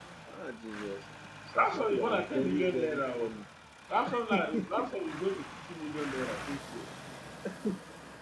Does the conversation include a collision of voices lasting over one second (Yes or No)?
Yes